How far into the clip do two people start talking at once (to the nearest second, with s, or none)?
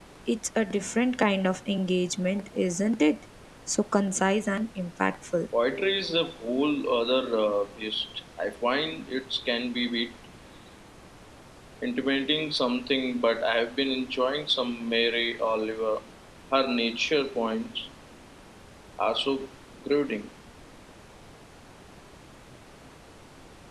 none